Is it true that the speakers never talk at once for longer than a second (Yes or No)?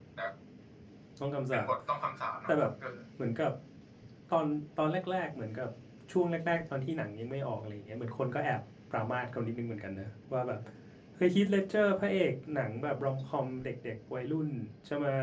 Yes